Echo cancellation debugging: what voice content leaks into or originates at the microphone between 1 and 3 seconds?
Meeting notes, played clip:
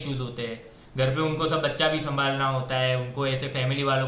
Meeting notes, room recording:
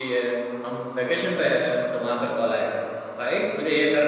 user only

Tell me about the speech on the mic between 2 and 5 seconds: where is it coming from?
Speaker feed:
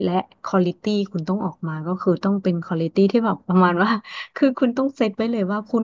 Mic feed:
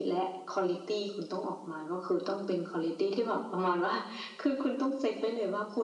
echo only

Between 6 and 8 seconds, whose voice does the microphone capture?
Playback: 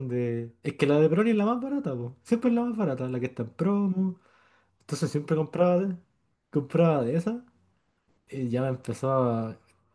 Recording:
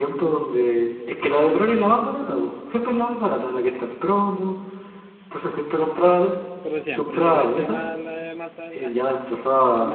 both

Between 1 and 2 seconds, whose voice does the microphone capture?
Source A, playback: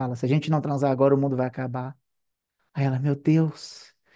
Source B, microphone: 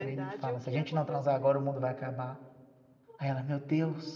both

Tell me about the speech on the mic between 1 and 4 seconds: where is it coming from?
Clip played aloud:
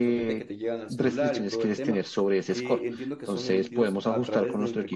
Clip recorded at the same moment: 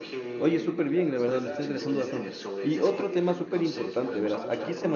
both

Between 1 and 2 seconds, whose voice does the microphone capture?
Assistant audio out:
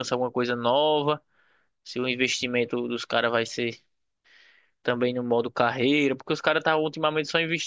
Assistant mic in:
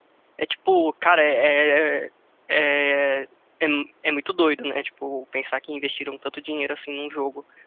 user only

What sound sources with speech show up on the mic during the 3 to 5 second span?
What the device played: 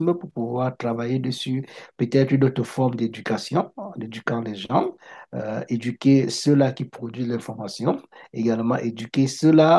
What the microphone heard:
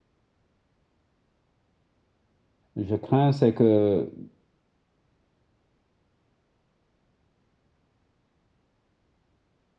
user only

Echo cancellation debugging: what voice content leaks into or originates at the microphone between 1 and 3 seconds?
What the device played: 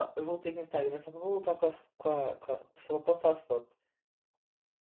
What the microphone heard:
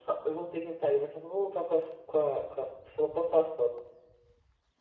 echo only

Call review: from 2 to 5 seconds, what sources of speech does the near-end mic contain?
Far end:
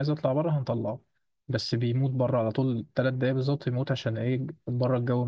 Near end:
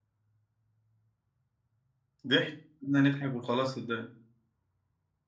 user only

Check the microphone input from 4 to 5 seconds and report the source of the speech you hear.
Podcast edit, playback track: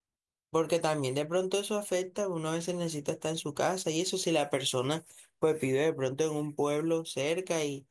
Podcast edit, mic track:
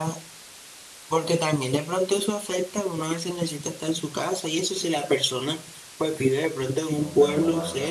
echo only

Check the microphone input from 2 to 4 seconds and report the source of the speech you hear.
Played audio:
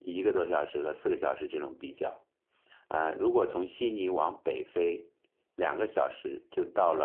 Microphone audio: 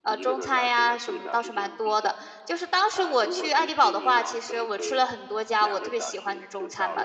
both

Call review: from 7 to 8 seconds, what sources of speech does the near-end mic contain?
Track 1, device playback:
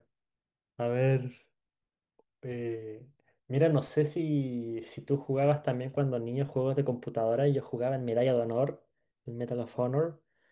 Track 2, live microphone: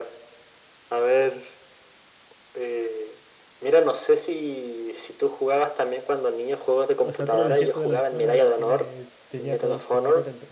both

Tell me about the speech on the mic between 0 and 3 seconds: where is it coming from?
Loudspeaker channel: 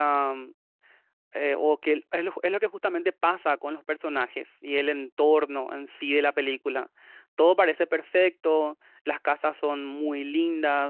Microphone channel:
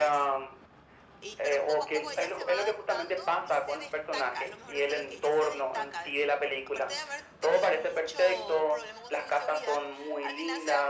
both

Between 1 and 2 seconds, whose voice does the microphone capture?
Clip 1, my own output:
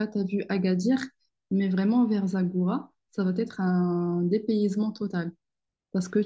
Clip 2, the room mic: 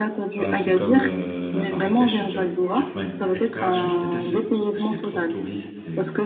both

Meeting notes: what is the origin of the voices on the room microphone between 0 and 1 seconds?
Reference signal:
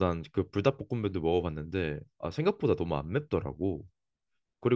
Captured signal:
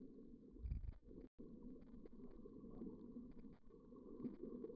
neither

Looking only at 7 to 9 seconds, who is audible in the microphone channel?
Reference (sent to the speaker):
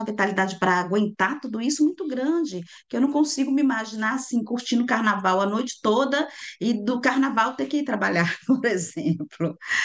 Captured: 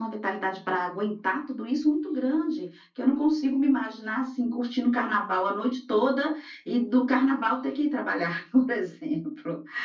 echo only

